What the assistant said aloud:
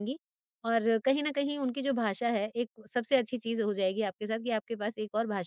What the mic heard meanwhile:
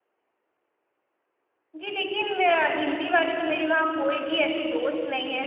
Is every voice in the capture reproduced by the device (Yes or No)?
No